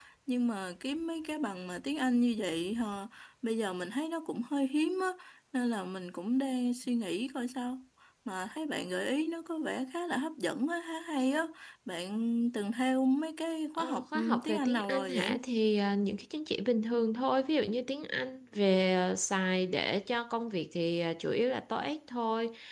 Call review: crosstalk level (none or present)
present